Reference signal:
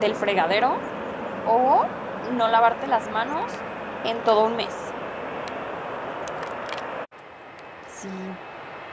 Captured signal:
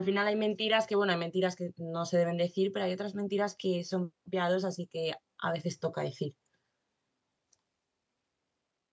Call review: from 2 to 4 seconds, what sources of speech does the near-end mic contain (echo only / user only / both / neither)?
user only